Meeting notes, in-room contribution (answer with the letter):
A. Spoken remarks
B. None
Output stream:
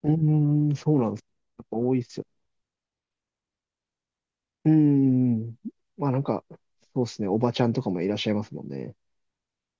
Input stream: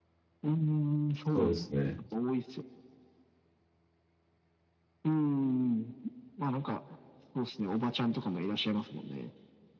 A